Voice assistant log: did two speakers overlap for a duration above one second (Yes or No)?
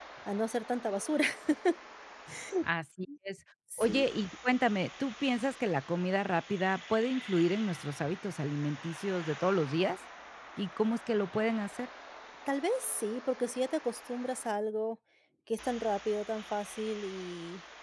No